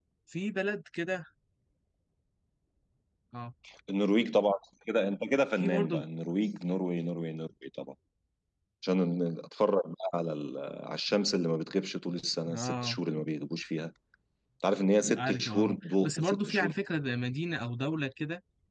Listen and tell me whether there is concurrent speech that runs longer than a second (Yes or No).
Yes